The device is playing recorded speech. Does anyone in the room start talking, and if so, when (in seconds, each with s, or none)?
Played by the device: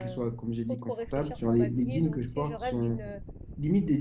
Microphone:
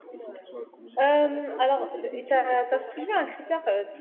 1.0 s